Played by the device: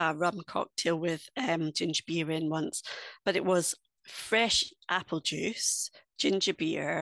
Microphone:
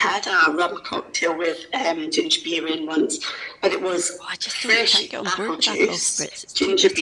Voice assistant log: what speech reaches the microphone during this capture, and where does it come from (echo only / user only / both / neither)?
both